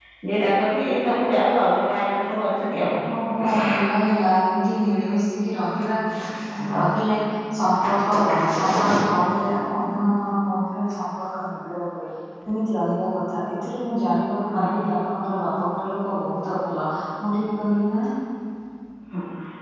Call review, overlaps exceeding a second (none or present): none